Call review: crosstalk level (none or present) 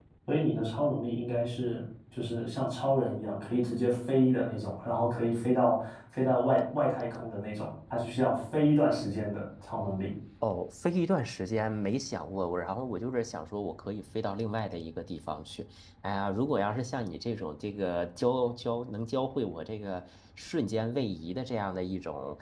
none